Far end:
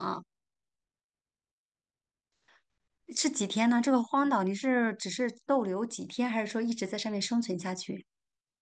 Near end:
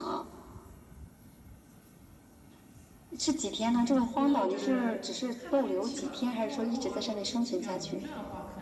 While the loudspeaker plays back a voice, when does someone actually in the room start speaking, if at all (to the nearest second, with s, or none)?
4 s